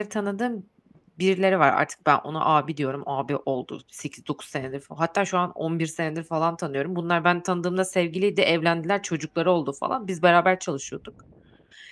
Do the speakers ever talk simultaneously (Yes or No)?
No